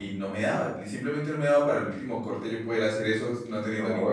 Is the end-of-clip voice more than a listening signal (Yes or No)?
Yes